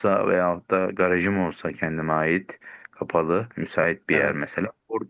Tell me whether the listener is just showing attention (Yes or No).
Yes